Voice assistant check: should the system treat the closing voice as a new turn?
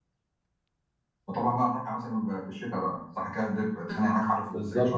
Yes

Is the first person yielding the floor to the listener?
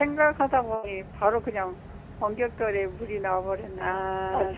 Yes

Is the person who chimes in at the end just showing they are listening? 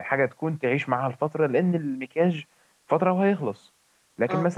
Yes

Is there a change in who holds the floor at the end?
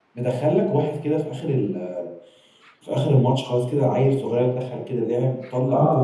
Yes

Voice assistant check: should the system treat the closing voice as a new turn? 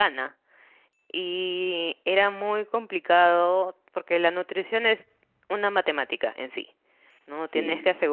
No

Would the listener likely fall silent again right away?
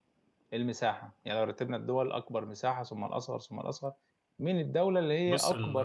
Yes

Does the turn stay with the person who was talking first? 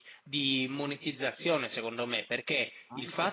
Yes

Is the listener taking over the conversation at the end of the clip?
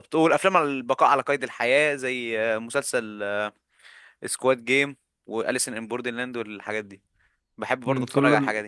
Yes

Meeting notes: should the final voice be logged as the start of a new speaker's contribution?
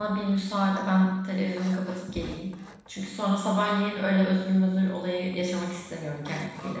Yes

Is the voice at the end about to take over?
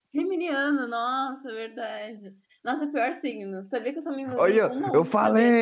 Yes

